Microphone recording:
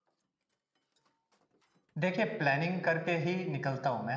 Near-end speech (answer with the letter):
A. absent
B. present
B